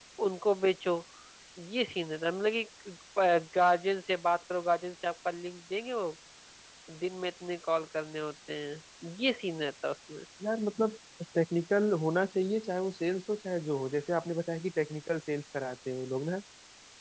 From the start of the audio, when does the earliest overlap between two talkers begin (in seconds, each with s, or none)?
none